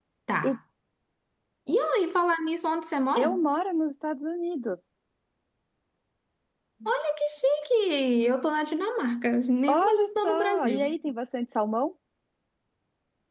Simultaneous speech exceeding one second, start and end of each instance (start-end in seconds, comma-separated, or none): 9.7-11.0